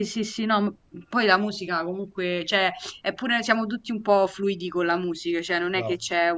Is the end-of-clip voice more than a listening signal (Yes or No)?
No